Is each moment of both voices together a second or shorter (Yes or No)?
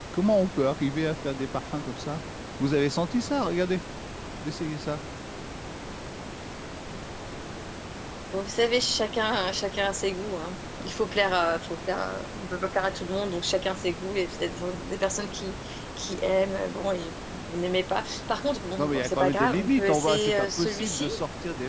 No